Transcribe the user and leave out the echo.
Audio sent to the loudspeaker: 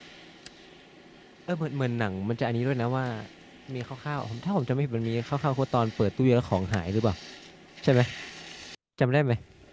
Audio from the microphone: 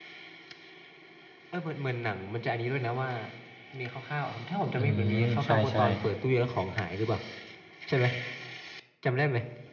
อืมใช่ใช่

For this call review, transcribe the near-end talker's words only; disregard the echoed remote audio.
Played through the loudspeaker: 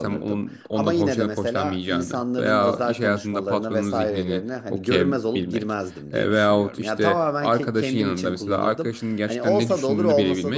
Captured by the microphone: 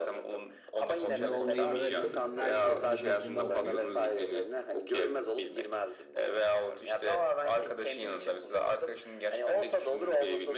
kendin olmayı bırakıp herkesin zihnini okuyup

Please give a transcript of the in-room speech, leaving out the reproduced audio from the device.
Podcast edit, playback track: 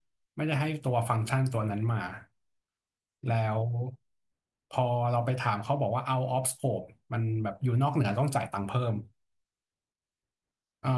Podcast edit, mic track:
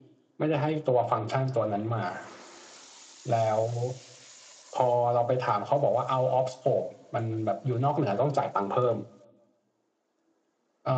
none

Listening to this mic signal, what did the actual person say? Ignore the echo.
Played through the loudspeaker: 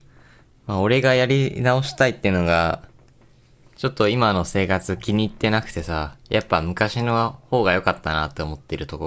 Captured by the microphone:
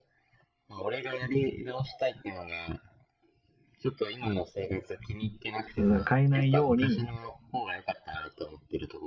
うん変えないように、

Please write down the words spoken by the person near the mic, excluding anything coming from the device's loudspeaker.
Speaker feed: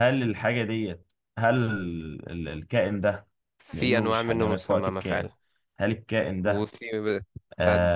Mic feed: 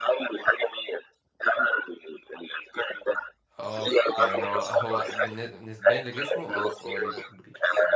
اه يعني هو هو بالن- نسبيا لجسمه اه فهو ليه بق كبير

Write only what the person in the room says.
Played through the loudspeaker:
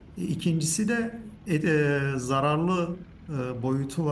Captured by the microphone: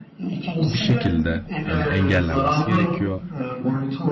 bir şekilde yani engellenmesi gerekiyor.

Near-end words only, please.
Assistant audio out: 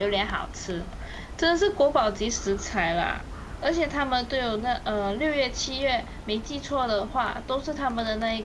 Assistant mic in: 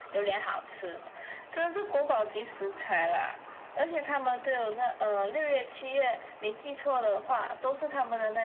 none

